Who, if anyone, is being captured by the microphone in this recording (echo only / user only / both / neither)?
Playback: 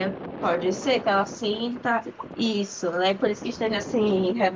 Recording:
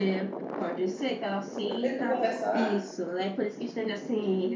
both